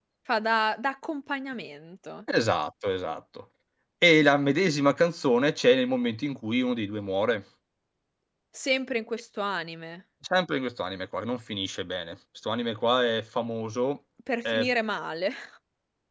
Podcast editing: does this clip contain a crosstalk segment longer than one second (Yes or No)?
No